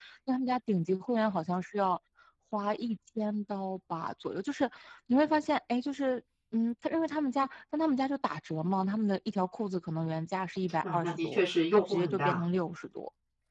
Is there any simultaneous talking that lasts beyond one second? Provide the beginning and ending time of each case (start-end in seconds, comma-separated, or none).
10.8-12.4